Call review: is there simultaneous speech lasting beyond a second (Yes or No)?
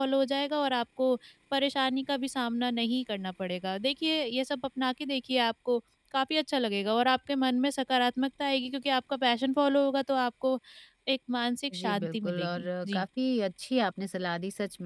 Yes